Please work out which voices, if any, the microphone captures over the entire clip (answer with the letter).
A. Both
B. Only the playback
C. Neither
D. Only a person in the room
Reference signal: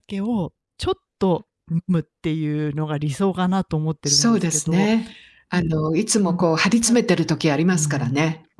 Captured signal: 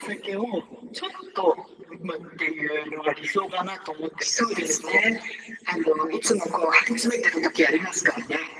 B